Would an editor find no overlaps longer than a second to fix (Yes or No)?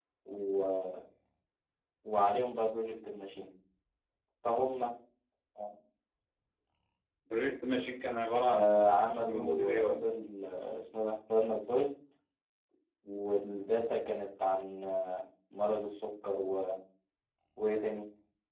No